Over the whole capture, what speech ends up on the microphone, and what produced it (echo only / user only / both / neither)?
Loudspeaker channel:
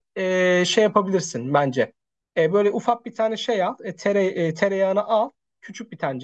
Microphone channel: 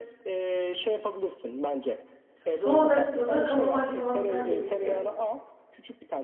both